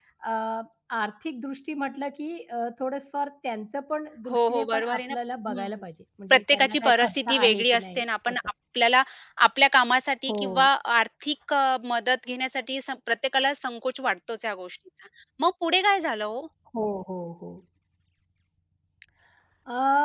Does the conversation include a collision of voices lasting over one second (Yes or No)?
Yes